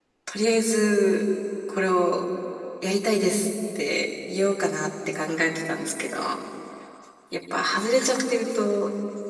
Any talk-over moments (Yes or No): No